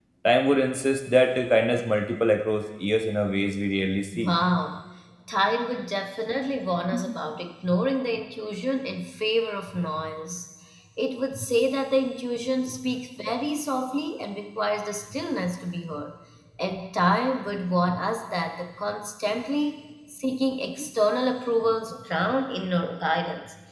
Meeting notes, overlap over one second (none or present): none